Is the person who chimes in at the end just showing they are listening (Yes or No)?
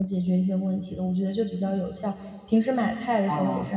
Yes